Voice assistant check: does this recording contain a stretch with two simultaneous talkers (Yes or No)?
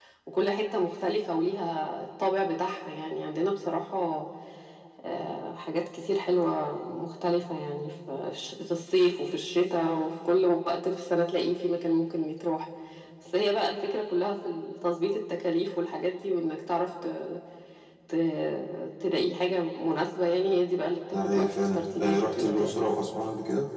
Yes